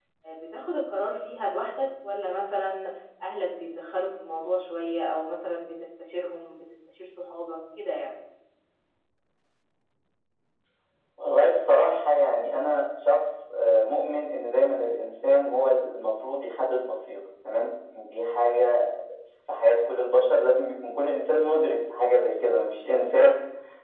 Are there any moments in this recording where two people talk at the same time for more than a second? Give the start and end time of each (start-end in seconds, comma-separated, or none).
none